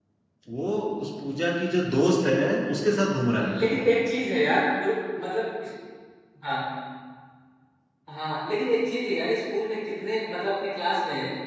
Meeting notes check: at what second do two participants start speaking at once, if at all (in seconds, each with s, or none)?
none